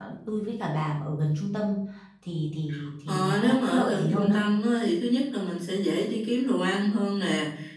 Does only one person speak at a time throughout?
No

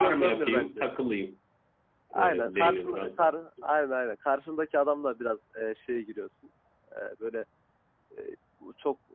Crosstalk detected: Yes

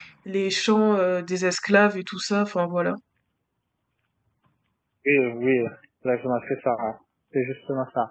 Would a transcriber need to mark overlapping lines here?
No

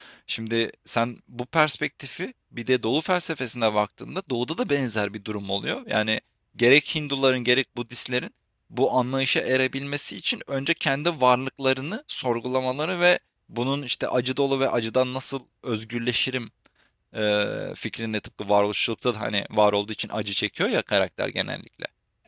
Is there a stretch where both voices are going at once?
No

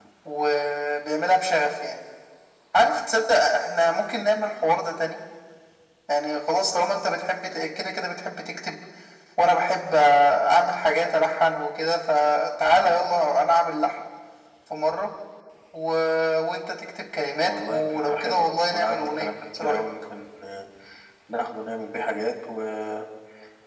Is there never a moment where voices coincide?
No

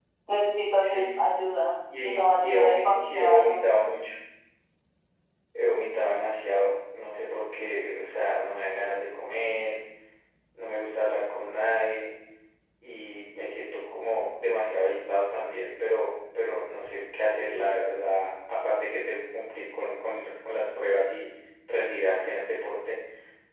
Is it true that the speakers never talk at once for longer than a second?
No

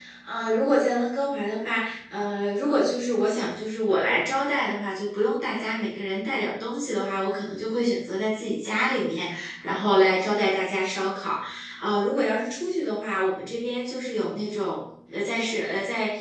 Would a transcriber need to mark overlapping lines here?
No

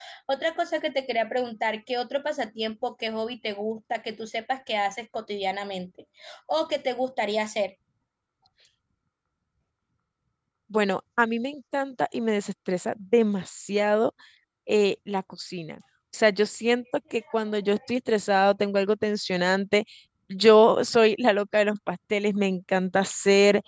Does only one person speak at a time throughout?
Yes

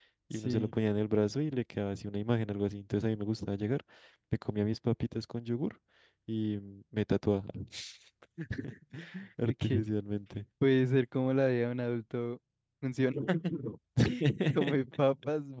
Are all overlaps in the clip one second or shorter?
Yes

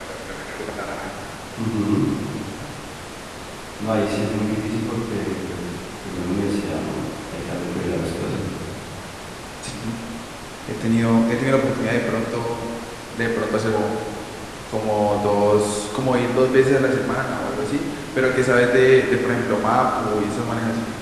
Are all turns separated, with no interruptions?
Yes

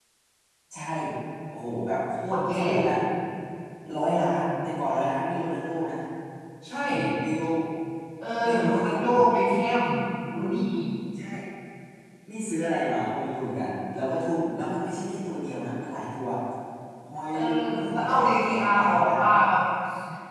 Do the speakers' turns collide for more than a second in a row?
Yes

